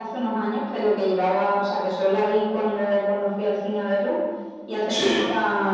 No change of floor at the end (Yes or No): Yes